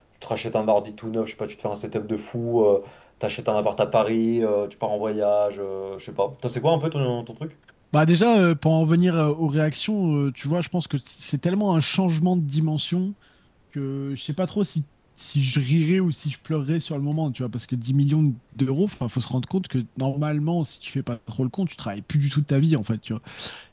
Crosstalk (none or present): none